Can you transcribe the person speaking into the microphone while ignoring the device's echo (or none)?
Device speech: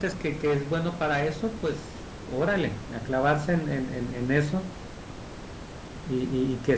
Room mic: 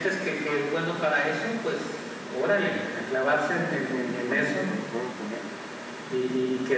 disfruto mucho cuando, cuando juego con él,